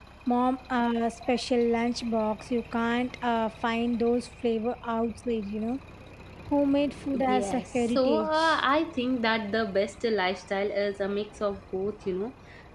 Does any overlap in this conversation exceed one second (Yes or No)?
Yes